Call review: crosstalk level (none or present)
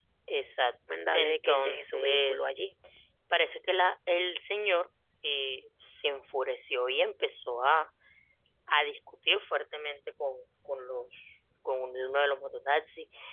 present